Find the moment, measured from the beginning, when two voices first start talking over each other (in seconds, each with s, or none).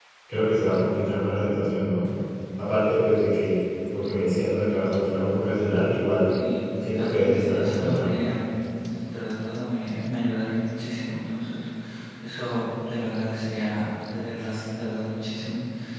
6.8 s